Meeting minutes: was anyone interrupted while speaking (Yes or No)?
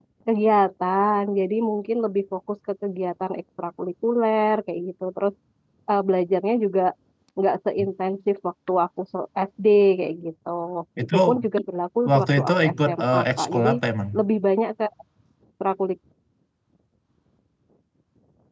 Yes